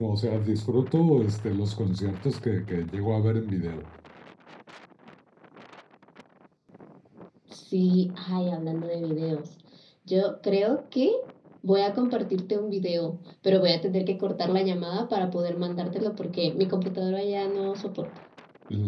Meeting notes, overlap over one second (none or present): none